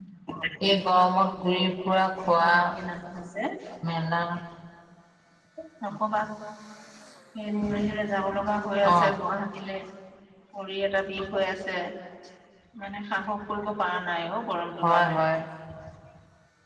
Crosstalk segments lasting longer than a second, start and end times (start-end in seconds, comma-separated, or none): none